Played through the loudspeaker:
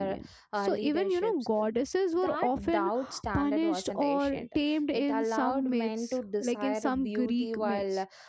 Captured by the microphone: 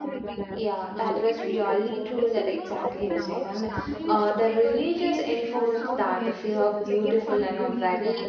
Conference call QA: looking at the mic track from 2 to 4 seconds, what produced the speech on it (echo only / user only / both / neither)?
both